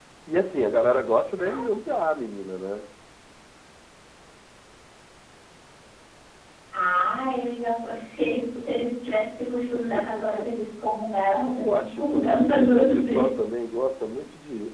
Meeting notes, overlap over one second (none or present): present